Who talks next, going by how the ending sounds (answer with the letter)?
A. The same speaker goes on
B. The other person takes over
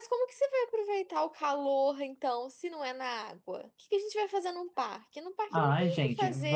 B